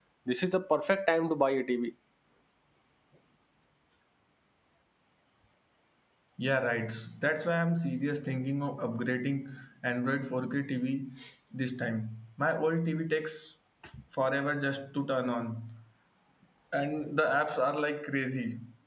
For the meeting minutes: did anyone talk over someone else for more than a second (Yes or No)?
No